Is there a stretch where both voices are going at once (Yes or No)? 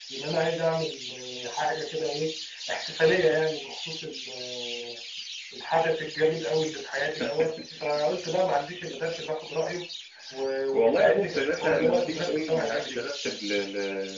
Yes